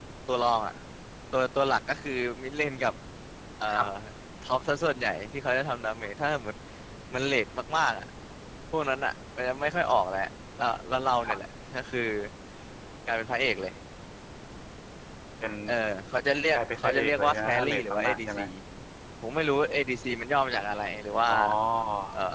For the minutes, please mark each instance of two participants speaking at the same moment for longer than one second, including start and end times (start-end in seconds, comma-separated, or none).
16.6-18.4